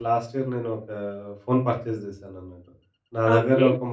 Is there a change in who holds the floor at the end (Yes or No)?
No